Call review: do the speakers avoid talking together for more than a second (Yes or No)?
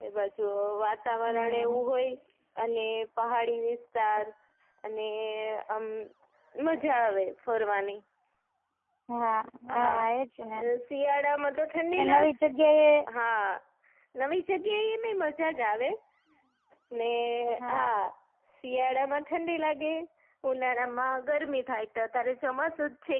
Yes